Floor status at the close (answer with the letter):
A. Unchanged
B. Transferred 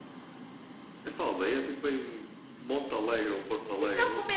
B